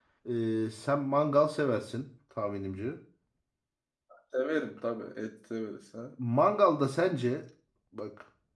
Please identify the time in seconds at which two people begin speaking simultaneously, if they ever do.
none

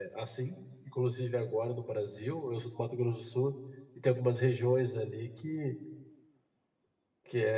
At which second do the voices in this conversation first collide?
none

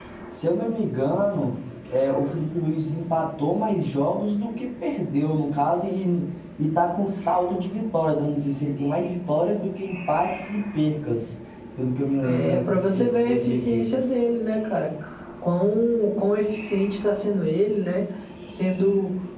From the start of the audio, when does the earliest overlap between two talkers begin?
12.2 s

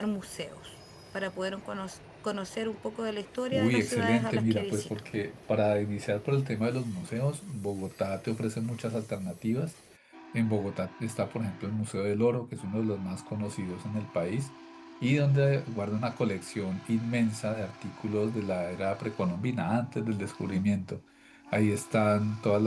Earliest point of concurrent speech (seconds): 3.5 s

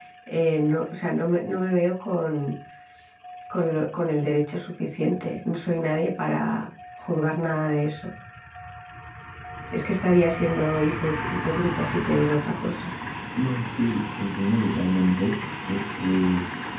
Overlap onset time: none

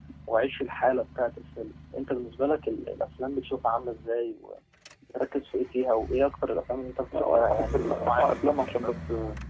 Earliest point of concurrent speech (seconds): 7.1 s

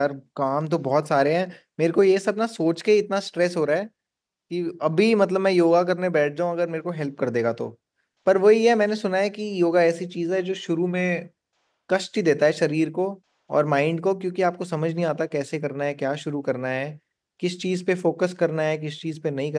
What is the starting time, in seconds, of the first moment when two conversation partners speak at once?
none

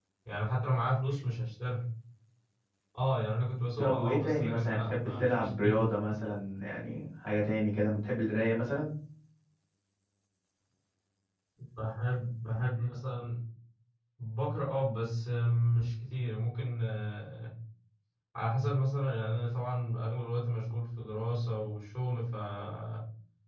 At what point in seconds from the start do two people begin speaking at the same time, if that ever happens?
3.8 s

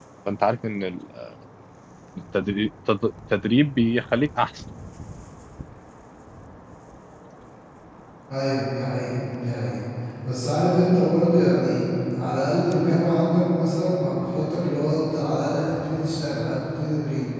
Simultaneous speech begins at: none

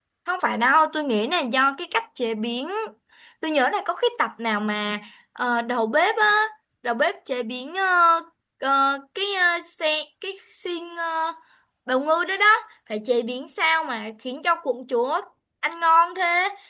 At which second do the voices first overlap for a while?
none

